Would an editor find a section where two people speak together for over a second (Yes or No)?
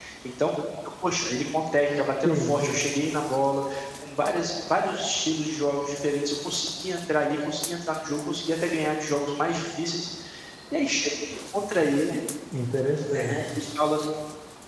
No